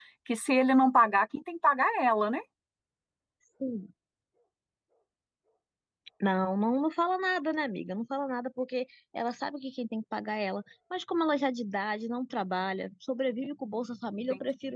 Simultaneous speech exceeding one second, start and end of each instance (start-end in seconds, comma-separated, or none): none